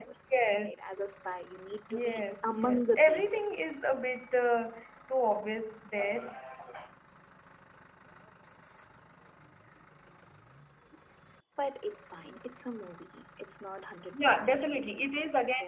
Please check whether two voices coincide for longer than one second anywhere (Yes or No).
Yes